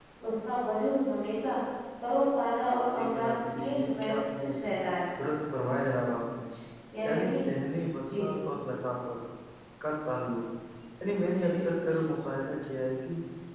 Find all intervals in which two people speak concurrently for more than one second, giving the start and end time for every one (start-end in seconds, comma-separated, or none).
2.9-4.5